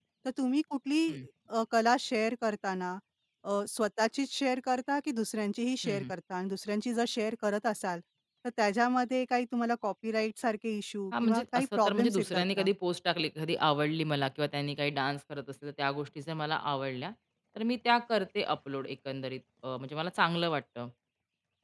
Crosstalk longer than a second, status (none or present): present